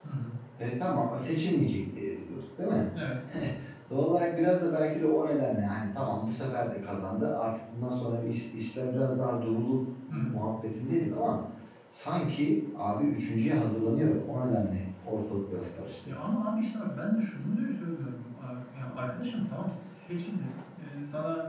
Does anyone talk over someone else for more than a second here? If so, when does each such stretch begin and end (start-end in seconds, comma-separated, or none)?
none